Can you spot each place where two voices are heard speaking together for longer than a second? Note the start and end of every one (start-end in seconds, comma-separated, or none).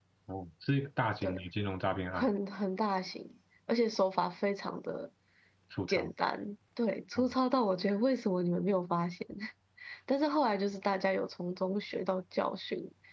none